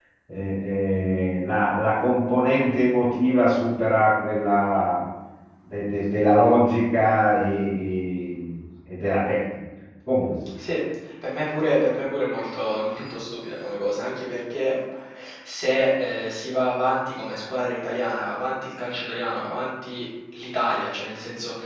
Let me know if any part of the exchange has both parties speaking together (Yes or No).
No